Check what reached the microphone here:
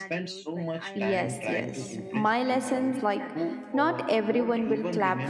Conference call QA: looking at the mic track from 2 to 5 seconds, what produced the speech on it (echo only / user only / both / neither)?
both